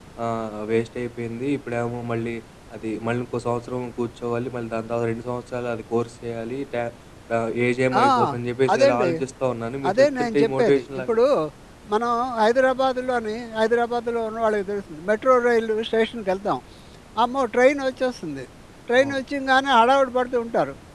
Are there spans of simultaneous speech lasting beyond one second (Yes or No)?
Yes